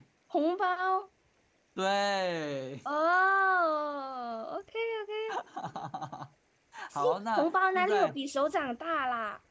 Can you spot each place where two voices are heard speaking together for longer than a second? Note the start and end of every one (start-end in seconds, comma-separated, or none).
7.0-8.2